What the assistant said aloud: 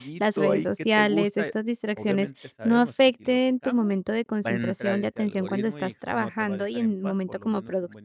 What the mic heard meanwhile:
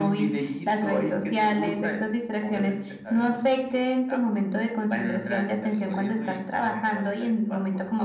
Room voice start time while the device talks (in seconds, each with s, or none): none